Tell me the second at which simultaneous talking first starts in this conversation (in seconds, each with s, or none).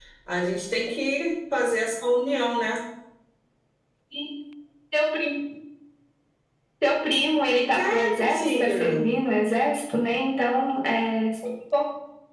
7.7 s